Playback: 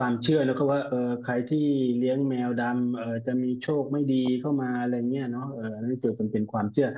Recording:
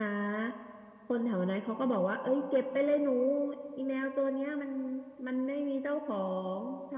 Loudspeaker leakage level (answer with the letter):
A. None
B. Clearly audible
A